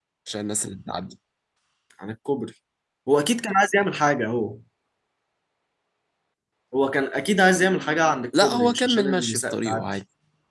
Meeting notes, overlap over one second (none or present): present